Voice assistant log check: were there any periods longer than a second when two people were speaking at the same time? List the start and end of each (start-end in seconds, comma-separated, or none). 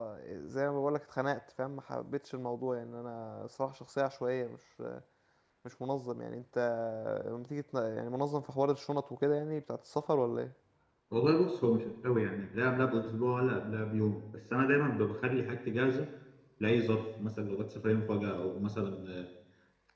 none